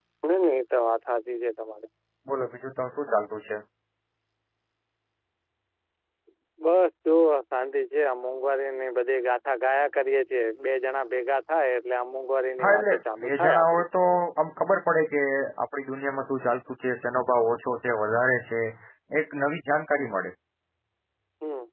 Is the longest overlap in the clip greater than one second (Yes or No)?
Yes